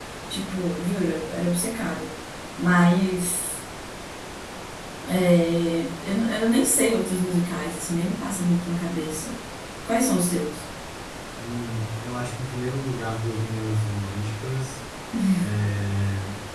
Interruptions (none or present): none